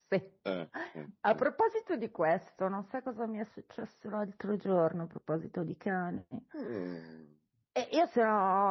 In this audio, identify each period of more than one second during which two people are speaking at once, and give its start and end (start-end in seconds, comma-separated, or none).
none